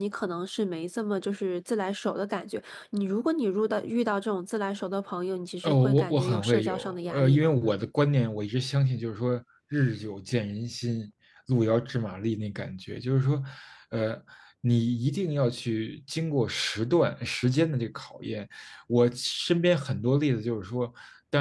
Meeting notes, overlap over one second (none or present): present